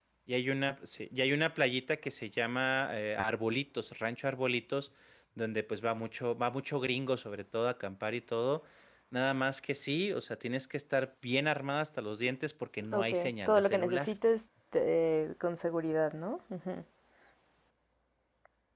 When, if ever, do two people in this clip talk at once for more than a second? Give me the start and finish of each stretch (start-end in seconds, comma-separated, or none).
12.9-14.1